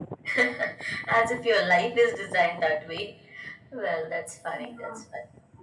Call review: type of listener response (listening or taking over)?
listening